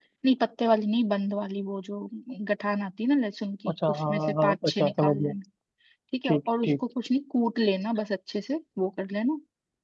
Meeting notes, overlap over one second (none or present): present